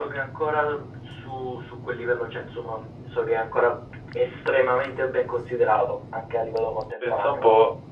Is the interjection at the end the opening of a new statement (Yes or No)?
Yes